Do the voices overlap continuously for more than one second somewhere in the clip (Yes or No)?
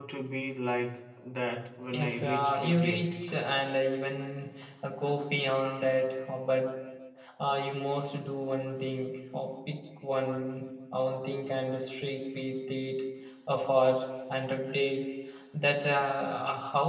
Yes